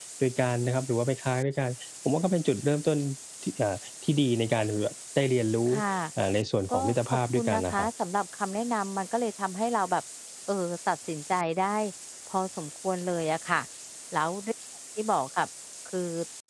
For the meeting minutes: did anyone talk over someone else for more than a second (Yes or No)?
Yes